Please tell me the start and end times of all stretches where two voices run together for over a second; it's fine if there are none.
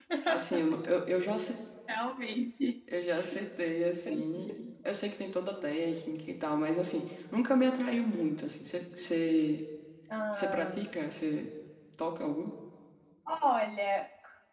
none

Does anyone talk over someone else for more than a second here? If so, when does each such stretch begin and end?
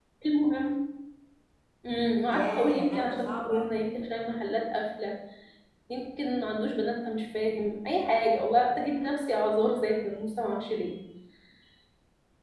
2.3-3.9

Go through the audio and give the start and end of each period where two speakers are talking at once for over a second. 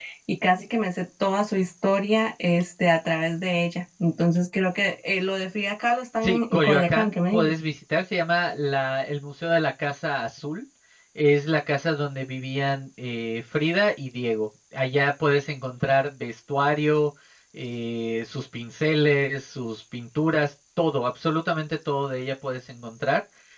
6.2-7.5

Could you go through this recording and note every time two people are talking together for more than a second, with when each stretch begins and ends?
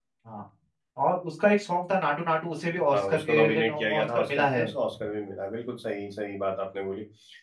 2.9-4.7

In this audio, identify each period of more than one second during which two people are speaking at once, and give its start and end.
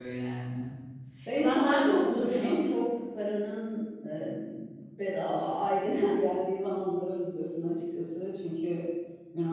1.4-2.6

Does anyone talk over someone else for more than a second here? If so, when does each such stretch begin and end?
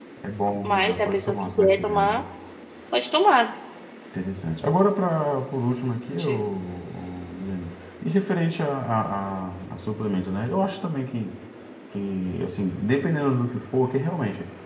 0.6-2.2

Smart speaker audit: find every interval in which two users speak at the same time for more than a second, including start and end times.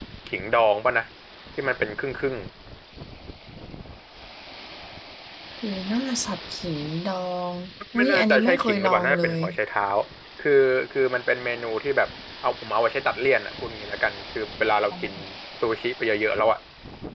8.0-9.4

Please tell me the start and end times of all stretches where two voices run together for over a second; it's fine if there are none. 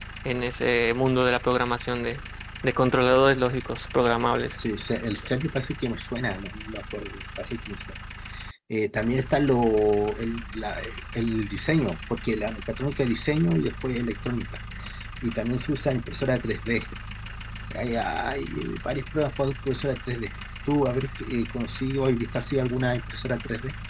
none

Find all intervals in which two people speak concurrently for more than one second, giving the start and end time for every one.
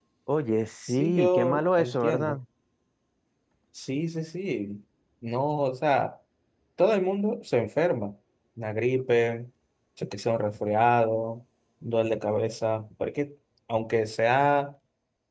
0.8-2.4

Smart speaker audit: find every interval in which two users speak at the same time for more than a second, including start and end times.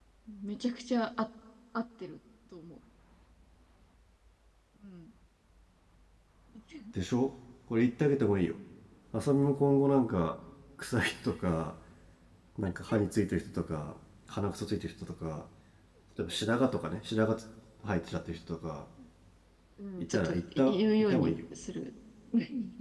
20.0-21.3

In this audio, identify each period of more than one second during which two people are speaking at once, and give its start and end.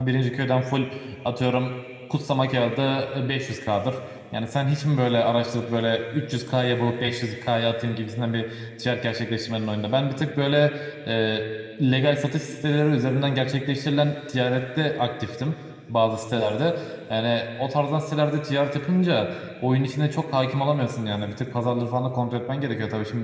none

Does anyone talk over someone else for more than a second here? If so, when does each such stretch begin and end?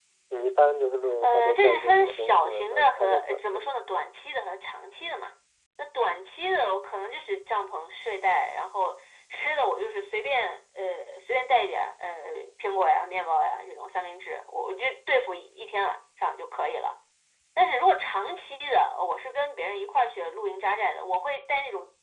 1.2-3.8

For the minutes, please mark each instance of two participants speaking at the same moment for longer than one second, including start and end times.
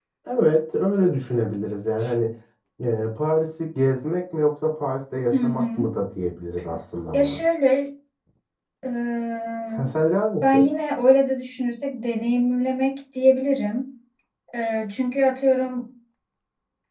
none

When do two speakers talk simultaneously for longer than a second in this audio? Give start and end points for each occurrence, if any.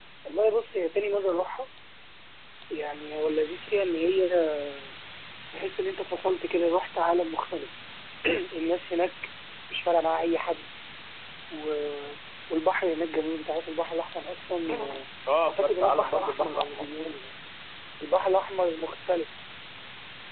15.5-16.8

